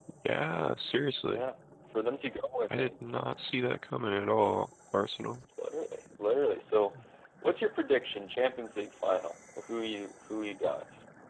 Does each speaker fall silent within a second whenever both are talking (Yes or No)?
Yes